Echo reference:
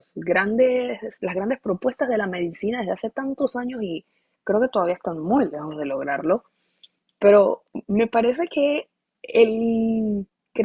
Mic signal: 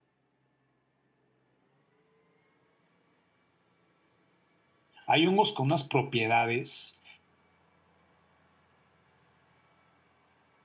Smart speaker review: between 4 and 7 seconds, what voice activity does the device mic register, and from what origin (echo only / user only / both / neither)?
user only